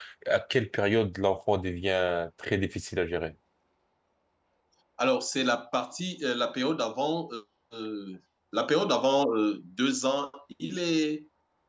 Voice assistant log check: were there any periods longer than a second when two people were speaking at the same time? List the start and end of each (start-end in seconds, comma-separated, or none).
none